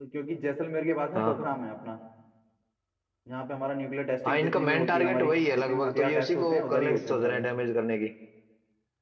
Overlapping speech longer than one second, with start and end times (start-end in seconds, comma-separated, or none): 4.3-7.4